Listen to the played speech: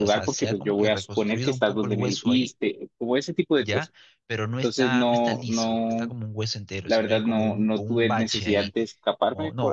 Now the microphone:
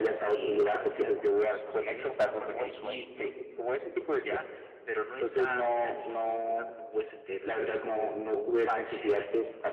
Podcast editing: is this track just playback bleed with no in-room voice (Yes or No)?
Yes